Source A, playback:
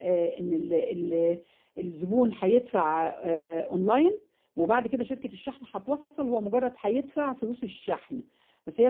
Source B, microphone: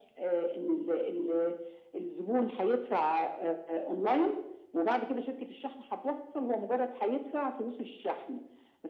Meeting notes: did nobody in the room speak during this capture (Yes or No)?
Yes